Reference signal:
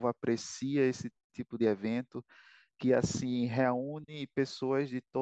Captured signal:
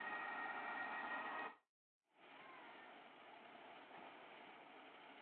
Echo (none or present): none